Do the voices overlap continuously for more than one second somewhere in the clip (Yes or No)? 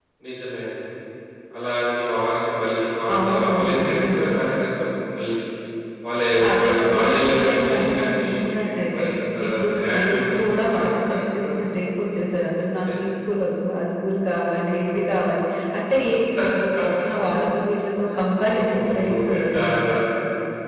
Yes